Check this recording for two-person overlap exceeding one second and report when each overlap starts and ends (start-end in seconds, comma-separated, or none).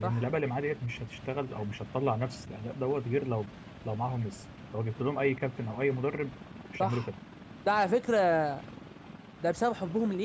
none